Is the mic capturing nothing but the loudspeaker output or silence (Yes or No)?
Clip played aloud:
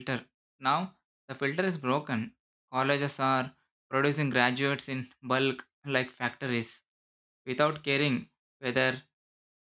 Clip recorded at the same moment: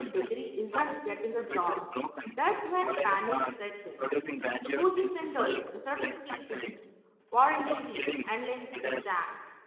No